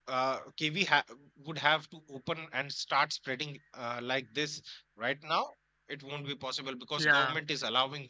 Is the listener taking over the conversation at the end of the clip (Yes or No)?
No